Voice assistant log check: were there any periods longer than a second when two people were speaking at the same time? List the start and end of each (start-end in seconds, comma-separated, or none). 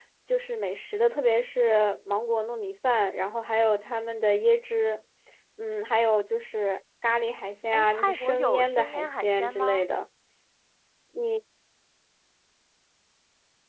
7.7-9.8